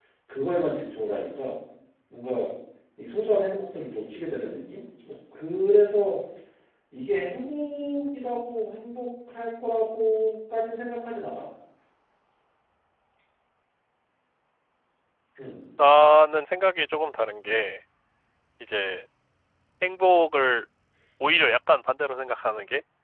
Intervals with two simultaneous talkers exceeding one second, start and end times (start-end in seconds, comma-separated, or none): none